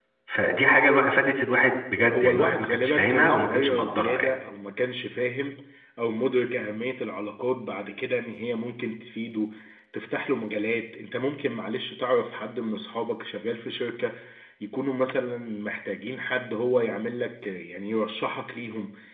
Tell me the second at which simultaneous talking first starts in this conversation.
2.1 s

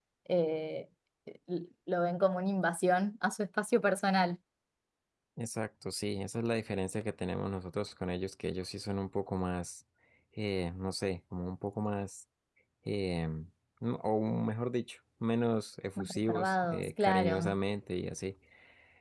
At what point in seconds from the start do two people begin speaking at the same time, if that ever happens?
16.0 s

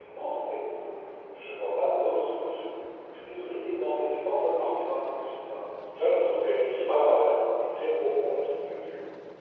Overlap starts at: 6.0 s

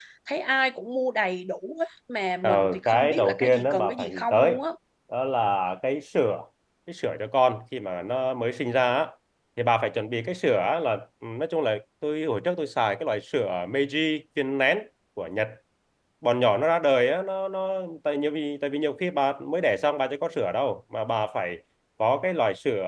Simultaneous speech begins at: 2.4 s

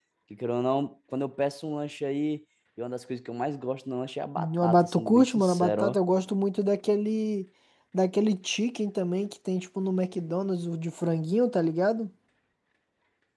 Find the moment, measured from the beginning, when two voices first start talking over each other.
4.4 s

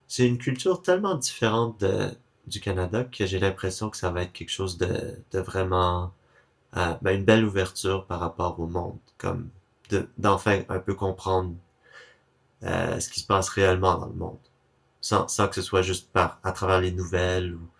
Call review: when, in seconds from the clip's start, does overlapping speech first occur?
none

